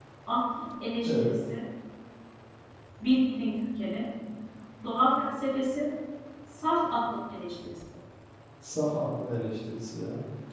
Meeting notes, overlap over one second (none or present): none